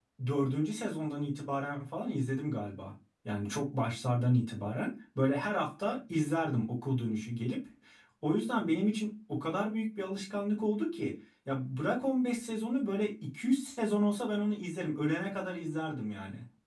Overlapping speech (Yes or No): No